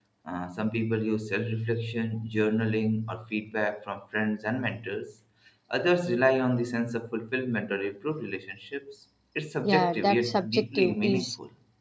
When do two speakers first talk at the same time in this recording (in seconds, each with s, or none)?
9.6 s